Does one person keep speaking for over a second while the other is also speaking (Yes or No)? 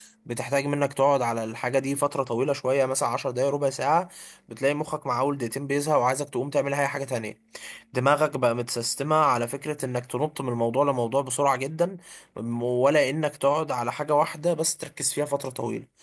No